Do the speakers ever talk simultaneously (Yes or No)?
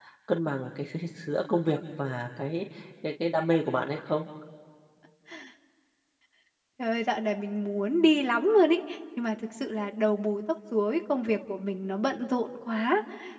No